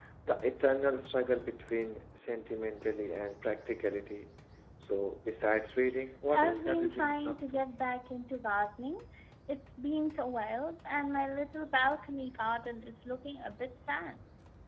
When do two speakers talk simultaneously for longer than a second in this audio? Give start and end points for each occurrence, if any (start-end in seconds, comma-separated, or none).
6.3-7.6